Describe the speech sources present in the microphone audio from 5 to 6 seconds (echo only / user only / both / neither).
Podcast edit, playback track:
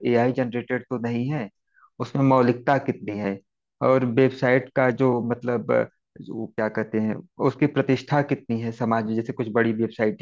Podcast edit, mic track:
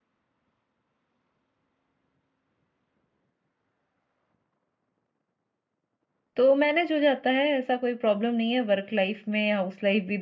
neither